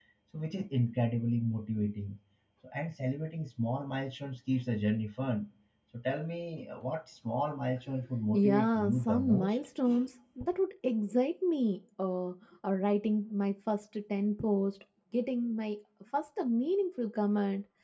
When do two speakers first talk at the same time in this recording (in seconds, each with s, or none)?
8.3 s